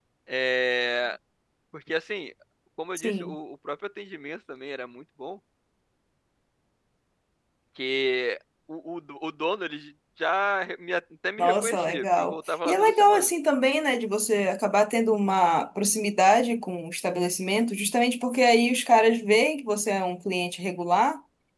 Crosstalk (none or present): present